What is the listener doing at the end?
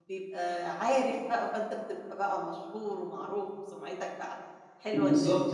taking over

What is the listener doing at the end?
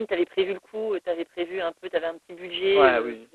taking over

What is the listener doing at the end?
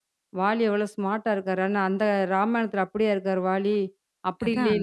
listening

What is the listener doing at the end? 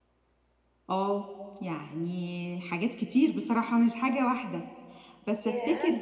listening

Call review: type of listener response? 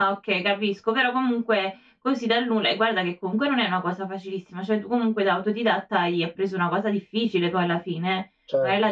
listening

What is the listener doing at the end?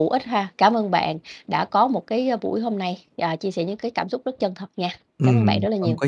taking over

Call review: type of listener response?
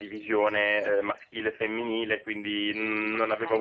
listening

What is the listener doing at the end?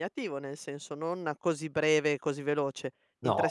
listening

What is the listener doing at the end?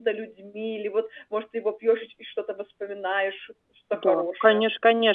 taking over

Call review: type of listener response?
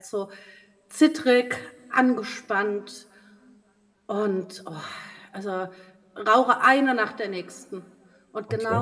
listening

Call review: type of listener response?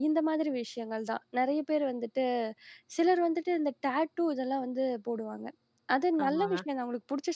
listening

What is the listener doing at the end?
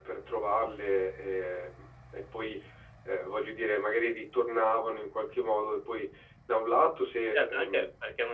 taking over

